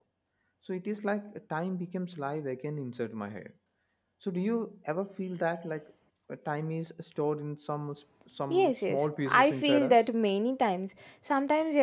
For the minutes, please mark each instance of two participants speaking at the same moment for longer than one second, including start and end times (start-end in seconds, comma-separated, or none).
8.5-10.0